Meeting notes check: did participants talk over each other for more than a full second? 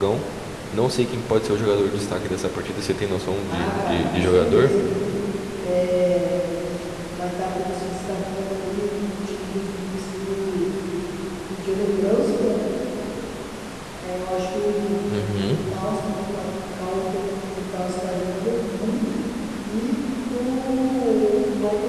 Yes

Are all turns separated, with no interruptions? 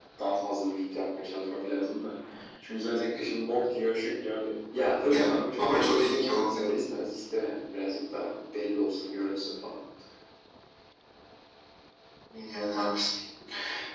No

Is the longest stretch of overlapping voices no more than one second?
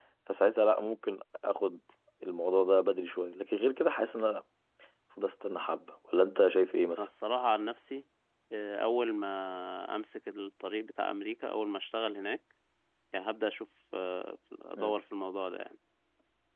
Yes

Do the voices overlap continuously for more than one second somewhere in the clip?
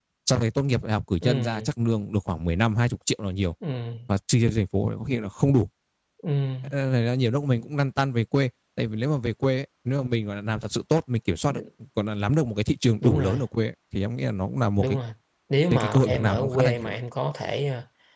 Yes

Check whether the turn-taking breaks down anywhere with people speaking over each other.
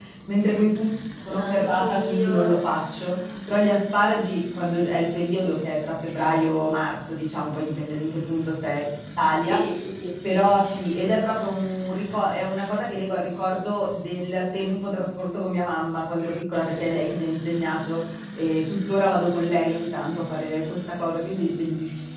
Yes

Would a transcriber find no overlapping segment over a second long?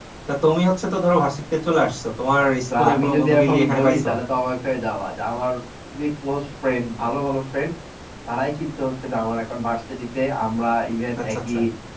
No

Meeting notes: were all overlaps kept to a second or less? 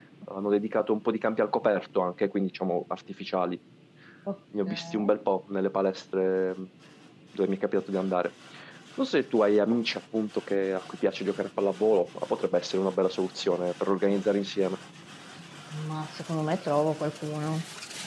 Yes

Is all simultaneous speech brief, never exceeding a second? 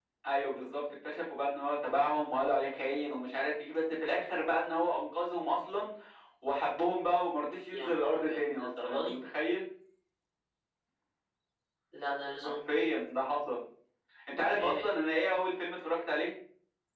No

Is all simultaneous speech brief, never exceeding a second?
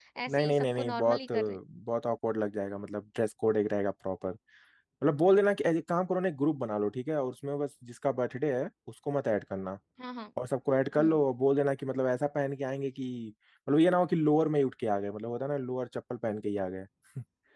No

